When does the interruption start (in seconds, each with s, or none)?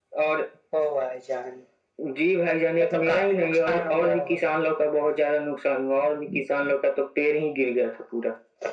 2.8 s